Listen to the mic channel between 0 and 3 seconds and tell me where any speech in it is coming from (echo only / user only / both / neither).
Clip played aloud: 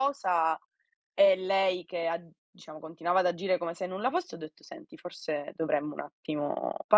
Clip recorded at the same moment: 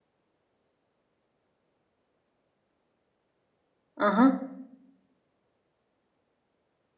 neither